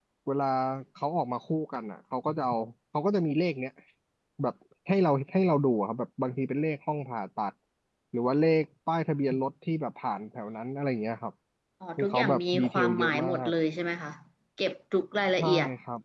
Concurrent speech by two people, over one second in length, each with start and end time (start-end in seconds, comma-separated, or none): 12.0-13.5